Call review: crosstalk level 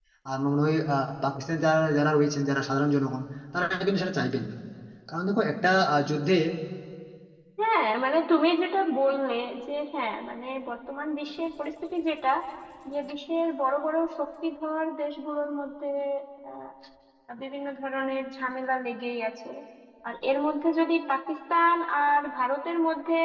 none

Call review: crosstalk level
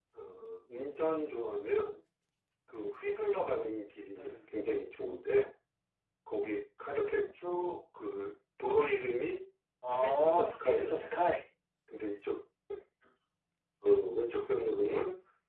present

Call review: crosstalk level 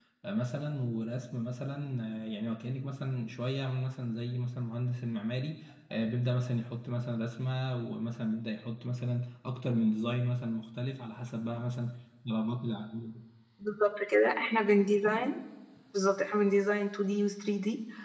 none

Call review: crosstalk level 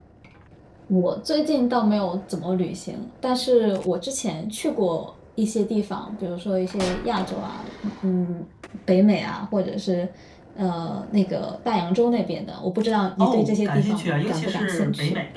present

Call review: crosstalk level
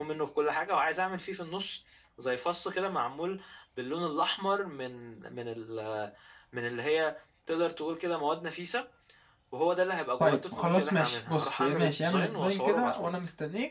present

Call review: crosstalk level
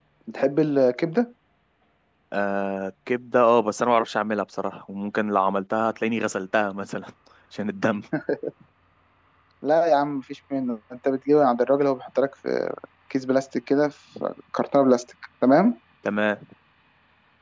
none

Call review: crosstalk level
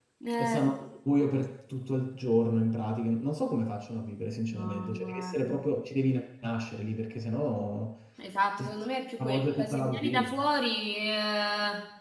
present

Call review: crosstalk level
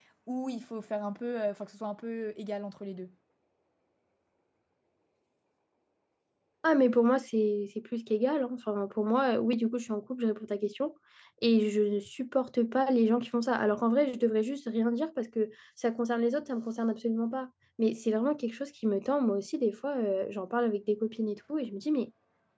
none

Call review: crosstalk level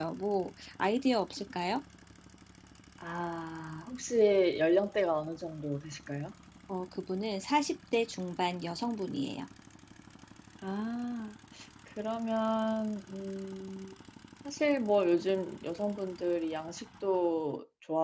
none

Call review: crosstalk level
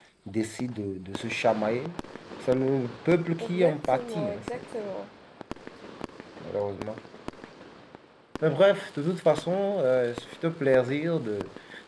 present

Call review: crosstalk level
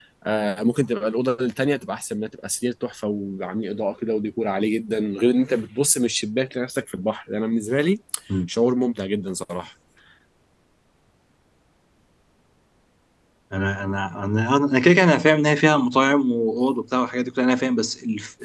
none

